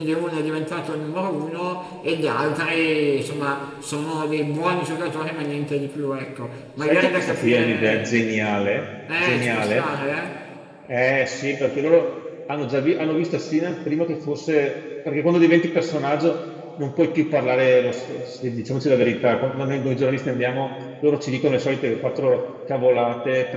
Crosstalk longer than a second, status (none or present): present